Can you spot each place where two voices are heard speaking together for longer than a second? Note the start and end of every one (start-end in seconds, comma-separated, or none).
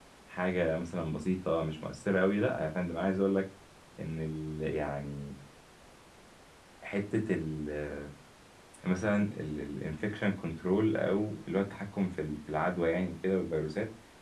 none